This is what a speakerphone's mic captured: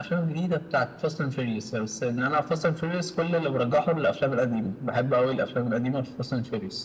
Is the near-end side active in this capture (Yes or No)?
No